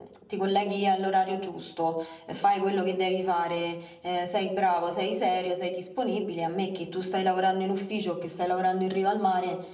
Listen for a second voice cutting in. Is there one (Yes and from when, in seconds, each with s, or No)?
No